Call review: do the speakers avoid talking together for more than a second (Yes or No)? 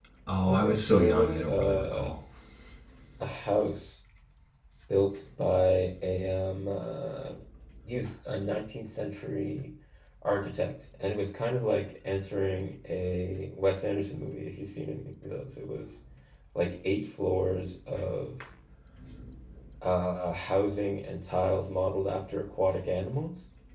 No